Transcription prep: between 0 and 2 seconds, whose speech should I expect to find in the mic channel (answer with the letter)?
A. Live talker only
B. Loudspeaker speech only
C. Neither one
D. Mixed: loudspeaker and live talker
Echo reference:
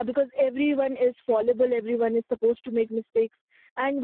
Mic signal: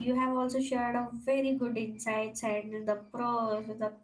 A